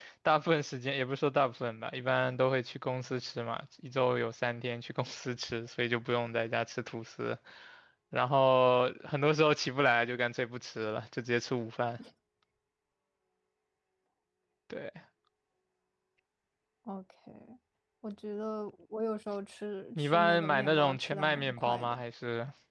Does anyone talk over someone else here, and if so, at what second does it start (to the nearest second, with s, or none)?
20 s